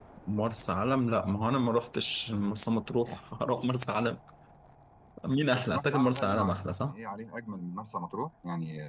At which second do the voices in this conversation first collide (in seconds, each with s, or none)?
5.6 s